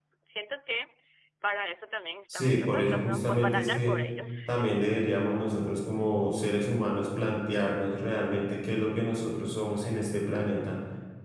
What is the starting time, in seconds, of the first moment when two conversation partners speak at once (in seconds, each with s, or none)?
2.3 s